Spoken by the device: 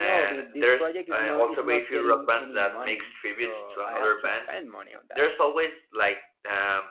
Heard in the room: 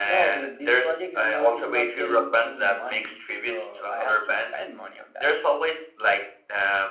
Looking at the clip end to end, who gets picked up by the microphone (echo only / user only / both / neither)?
echo only